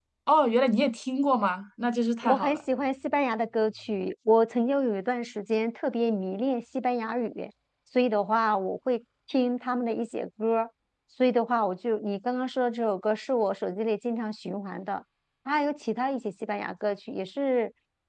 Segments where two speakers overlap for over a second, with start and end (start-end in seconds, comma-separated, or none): none